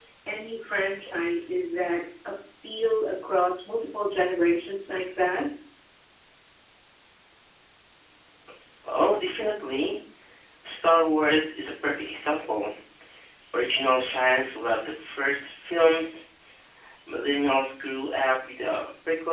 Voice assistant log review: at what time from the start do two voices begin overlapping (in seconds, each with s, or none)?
none